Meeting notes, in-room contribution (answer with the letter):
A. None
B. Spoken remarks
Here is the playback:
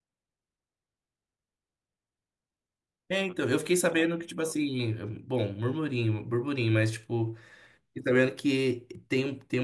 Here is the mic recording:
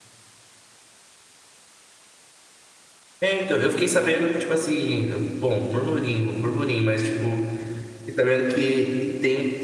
A